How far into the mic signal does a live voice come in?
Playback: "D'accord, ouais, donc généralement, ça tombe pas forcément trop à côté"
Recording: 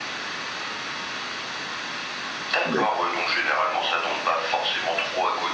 2.6 s

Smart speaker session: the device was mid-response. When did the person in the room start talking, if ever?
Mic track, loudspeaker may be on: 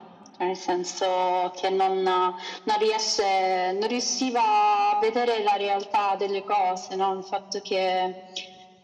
none

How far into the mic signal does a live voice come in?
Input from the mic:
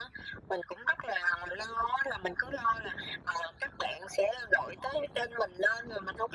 none

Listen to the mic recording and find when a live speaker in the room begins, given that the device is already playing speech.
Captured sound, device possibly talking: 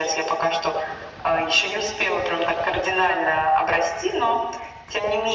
none

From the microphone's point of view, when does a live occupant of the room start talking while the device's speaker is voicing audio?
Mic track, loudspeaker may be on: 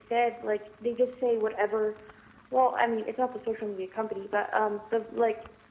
none

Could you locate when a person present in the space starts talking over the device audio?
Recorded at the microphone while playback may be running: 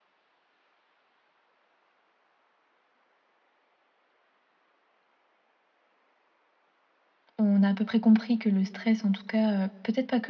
7.4 s

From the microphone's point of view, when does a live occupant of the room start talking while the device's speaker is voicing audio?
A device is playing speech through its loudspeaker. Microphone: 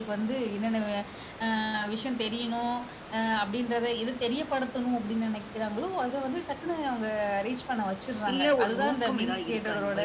8.3 s

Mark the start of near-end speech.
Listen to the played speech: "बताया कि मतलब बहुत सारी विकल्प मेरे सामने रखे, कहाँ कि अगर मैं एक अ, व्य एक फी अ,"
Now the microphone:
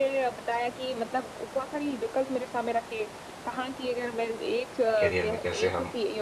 5.0 s

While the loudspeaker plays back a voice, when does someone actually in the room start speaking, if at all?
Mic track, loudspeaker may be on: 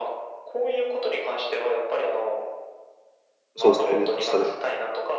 3.6 s

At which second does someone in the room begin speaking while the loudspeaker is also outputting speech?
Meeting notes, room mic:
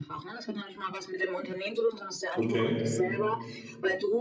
2.4 s

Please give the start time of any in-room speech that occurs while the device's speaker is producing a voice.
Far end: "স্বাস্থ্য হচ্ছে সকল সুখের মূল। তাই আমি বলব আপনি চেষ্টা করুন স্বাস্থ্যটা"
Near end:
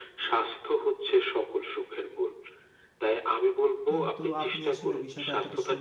3.9 s

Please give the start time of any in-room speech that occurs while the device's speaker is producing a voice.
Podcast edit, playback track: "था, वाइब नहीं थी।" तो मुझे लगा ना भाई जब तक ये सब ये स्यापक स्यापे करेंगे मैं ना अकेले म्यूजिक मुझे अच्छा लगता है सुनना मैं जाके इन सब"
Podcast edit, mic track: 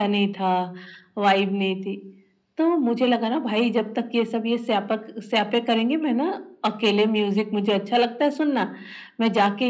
none

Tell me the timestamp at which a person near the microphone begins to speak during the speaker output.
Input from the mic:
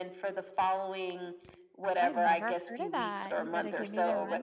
1.8 s

